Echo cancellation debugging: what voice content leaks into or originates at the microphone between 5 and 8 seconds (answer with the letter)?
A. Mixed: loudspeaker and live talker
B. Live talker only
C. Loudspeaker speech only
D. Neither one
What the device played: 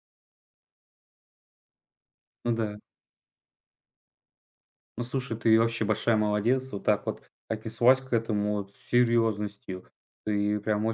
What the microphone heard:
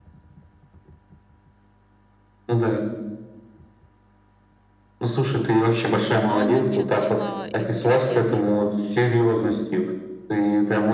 A